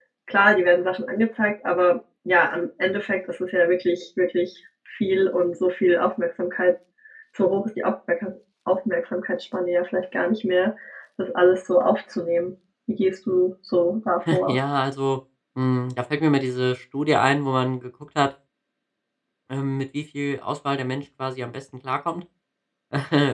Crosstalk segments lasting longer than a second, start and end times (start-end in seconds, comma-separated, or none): none